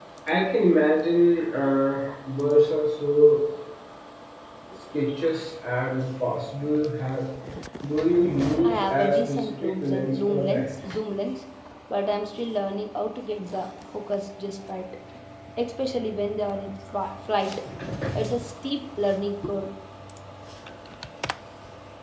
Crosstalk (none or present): present